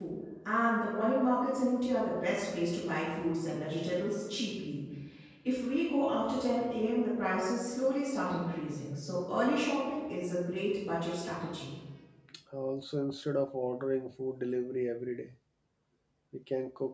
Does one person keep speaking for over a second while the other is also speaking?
No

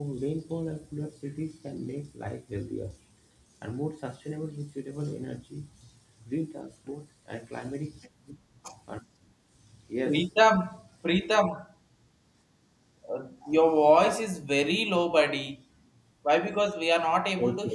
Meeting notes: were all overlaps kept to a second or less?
Yes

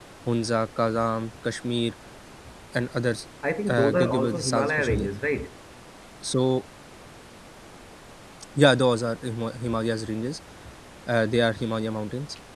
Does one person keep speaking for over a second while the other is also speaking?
Yes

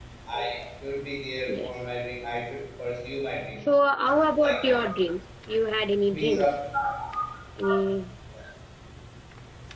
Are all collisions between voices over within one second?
Yes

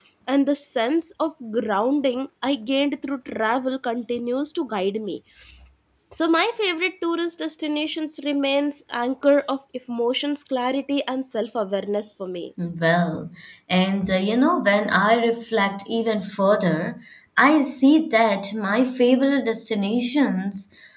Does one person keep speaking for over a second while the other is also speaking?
No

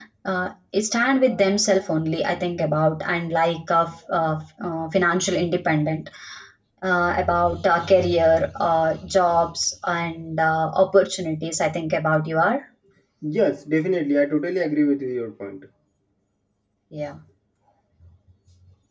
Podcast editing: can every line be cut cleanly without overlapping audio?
Yes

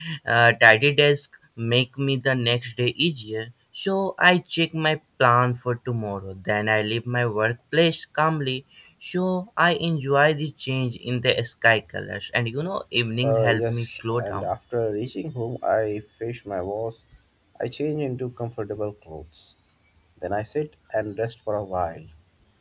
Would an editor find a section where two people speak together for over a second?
Yes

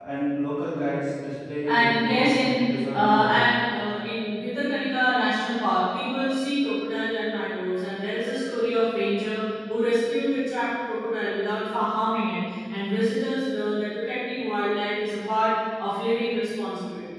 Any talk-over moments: Yes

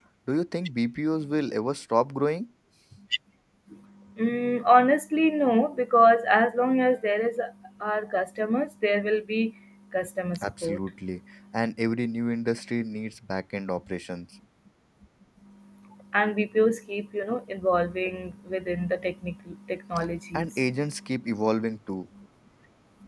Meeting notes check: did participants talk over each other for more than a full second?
No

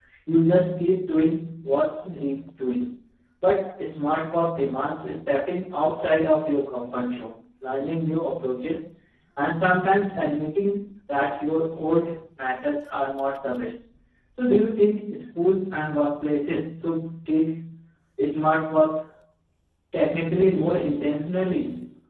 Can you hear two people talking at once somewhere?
No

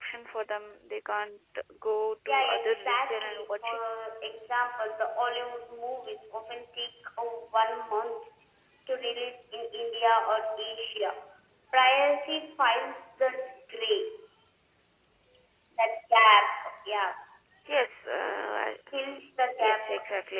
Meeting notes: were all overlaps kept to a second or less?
No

